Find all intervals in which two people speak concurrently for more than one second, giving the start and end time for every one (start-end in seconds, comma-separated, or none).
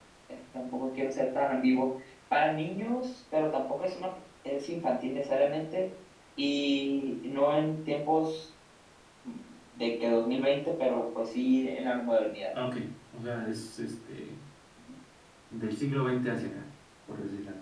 none